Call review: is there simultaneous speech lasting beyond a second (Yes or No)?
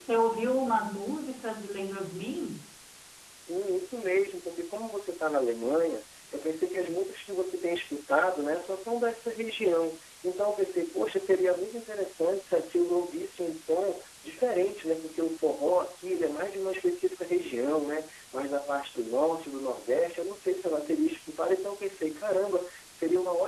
No